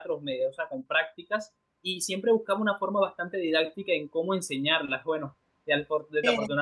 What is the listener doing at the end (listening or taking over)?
listening